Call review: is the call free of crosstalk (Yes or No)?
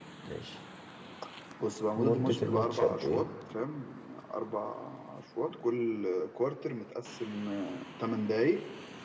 No